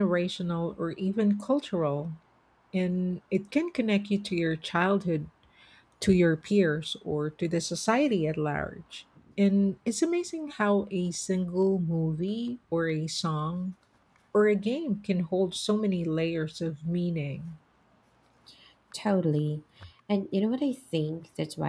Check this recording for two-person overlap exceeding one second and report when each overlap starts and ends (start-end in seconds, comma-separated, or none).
none